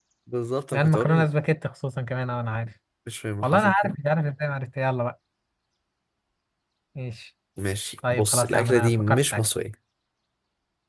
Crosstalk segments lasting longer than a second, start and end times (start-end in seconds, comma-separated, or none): 8.1-9.5